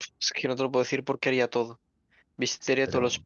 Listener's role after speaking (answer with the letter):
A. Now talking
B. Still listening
B